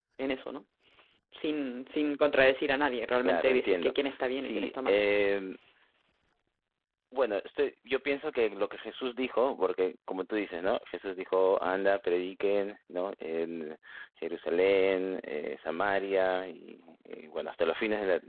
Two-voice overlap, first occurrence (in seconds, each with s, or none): 3.2 s